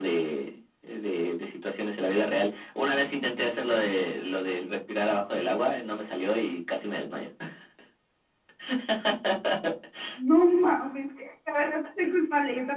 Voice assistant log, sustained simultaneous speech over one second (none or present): none